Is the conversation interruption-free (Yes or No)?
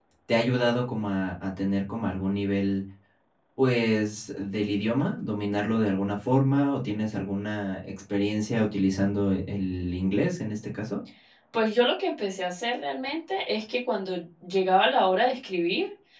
Yes